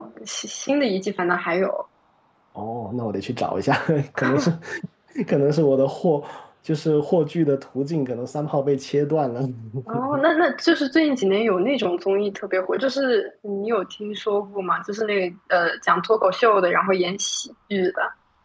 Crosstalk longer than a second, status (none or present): none